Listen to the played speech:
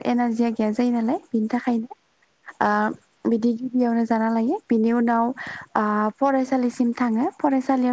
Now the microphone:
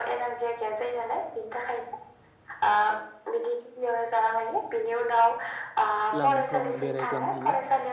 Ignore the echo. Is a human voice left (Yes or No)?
Yes